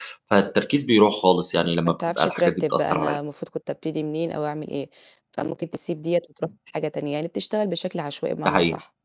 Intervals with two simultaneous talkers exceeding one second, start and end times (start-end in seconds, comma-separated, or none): 1.9-3.2